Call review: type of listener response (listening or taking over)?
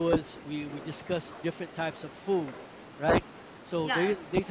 listening